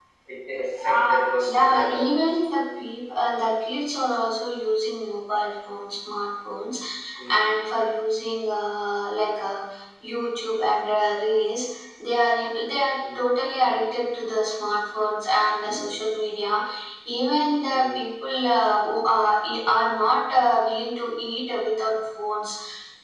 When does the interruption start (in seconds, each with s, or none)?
1.0 s